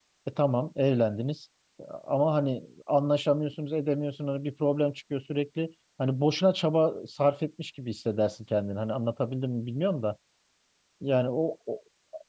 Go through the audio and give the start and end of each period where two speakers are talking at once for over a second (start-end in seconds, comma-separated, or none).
none